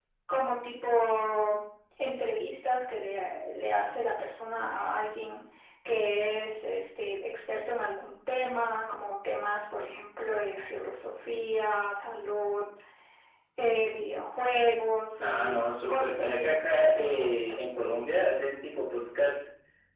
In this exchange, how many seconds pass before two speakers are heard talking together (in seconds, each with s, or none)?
15.2 s